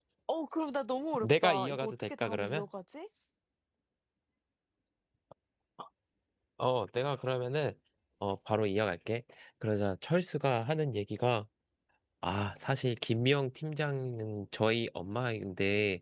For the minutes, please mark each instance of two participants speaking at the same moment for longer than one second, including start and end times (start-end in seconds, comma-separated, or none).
1.2-2.6